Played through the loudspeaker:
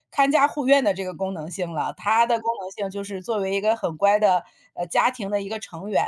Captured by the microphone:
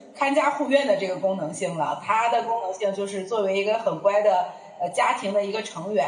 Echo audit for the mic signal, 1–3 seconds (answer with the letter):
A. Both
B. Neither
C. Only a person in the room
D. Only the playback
D